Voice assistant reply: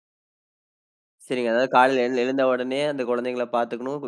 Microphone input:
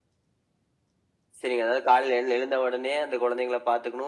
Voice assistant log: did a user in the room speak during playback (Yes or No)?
No